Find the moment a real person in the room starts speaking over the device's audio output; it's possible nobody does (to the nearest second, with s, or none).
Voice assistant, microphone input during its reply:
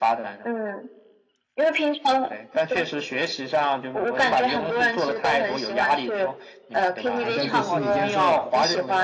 7 s